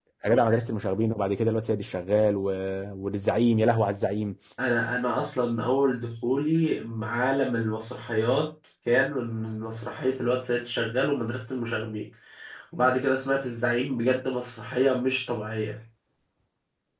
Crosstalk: none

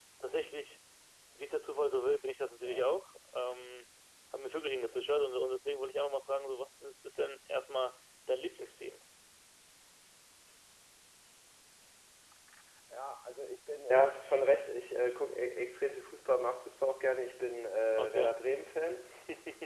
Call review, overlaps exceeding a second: none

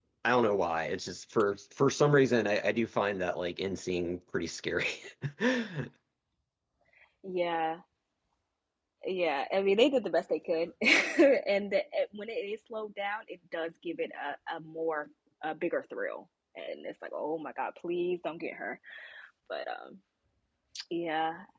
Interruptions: none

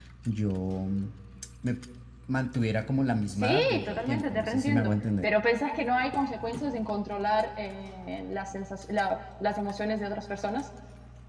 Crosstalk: present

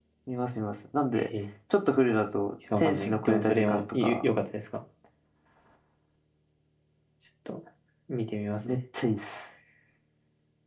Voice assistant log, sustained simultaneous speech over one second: present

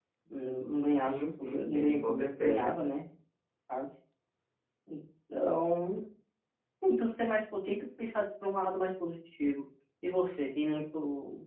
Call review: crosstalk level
present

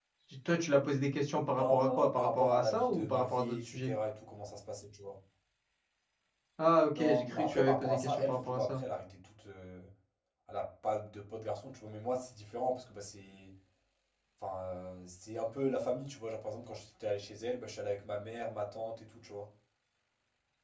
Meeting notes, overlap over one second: present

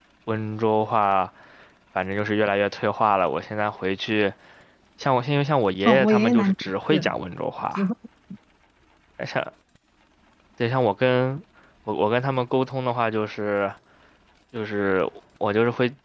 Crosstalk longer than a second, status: present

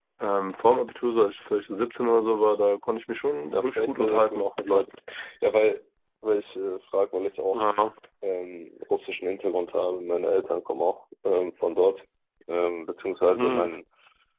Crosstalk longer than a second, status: present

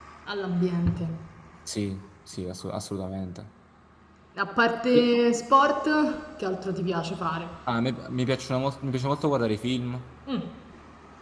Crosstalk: none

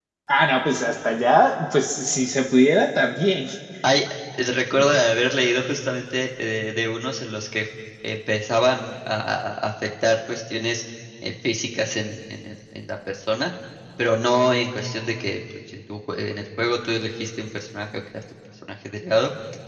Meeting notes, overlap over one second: none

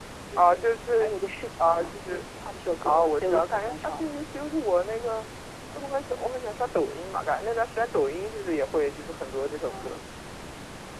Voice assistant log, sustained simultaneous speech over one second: present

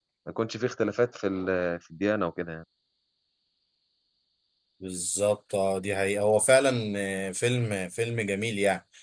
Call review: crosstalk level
none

